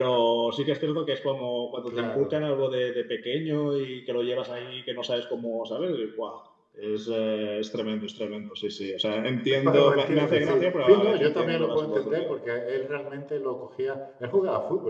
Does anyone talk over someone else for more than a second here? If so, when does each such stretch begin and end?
9.6-12.2

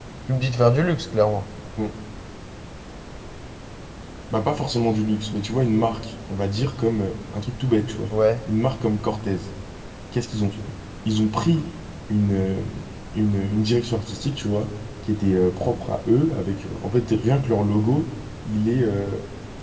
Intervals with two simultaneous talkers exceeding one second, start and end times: none

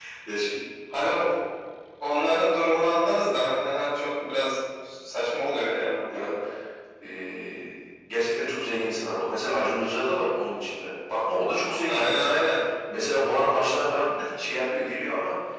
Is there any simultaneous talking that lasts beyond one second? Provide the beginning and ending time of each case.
none

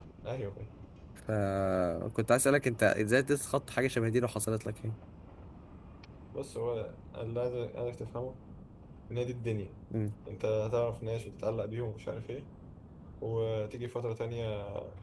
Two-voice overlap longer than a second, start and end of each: none

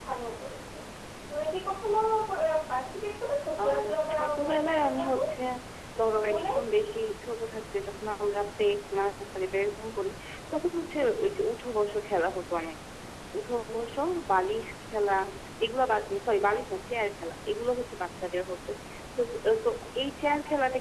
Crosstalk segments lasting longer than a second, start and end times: 3.6-5.2

